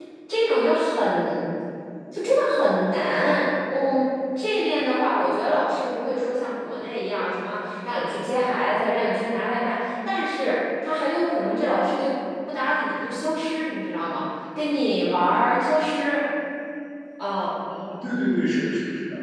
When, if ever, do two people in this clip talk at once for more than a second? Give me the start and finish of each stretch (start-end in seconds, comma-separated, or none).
none